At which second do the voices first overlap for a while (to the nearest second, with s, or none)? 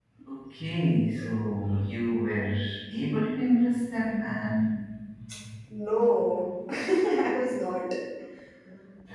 none